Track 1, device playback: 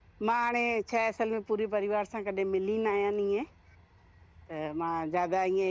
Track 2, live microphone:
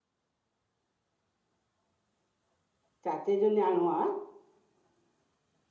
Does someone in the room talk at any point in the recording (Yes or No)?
Yes